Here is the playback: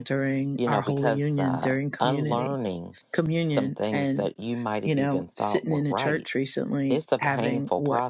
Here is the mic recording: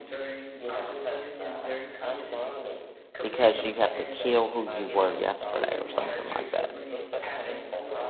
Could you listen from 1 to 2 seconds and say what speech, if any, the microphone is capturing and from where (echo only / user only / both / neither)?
echo only